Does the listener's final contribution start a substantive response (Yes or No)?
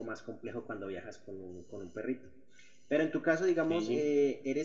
No